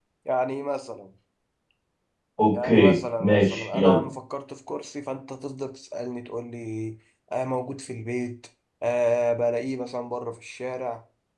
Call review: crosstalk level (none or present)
present